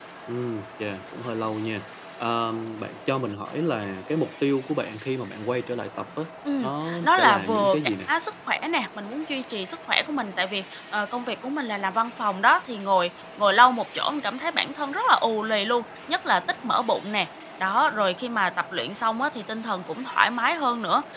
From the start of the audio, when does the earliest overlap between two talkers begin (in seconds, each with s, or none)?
6.6 s